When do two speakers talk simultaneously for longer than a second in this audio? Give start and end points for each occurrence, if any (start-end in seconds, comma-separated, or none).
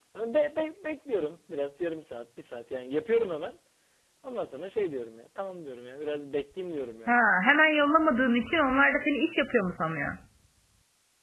none